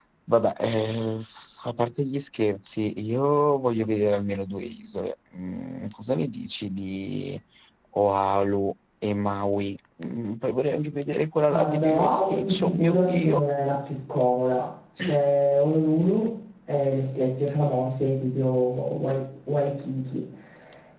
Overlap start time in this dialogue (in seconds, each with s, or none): 11.5 s